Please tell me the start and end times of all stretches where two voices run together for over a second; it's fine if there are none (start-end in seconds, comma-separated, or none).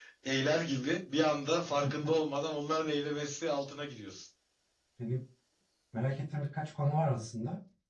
none